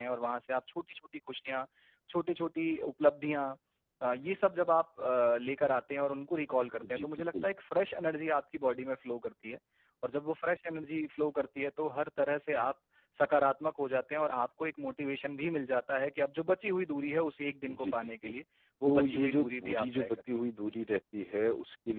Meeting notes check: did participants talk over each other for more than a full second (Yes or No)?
Yes